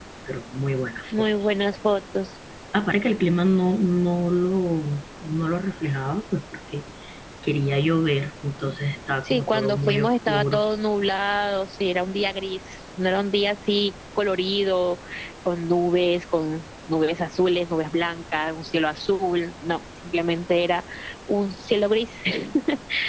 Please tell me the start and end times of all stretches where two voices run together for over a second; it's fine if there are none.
9.2-10.6

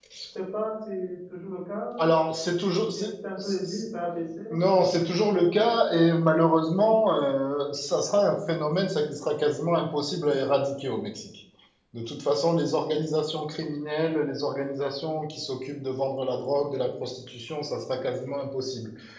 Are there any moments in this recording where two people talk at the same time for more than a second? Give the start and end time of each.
none

